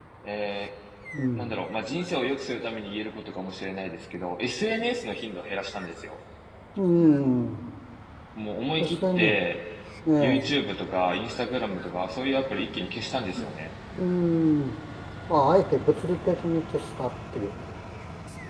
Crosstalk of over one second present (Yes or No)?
No